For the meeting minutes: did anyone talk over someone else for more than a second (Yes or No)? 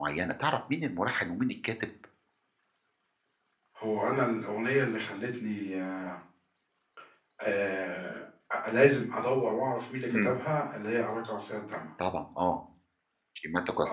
No